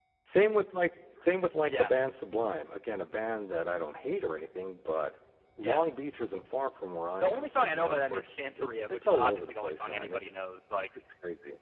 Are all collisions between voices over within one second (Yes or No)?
No